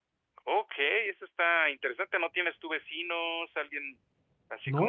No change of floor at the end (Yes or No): No